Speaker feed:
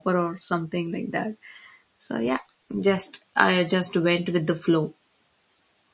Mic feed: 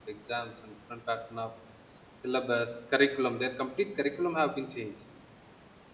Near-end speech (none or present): present